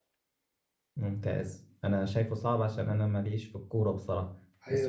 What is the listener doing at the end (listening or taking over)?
taking over